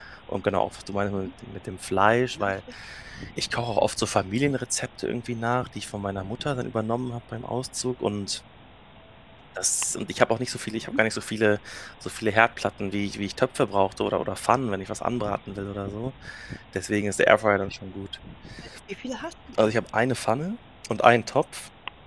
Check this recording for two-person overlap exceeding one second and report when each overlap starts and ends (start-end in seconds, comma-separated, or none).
none